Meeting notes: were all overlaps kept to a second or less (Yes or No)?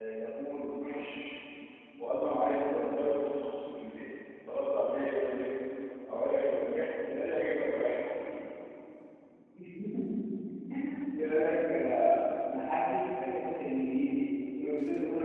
Yes